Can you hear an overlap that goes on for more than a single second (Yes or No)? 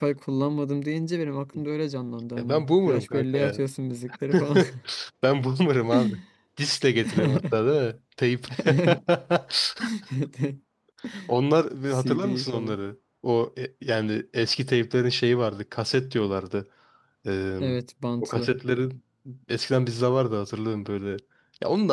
Yes